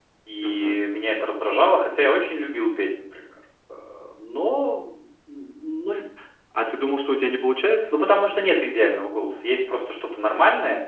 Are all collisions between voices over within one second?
Yes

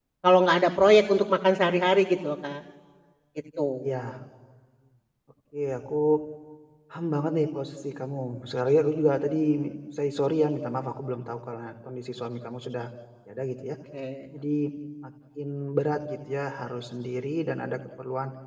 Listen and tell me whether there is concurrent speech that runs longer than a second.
No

